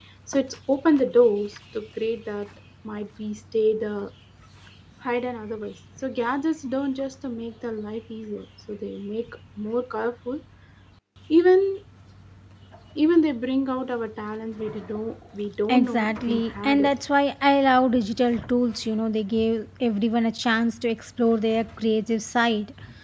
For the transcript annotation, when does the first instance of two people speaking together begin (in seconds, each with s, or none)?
15.7 s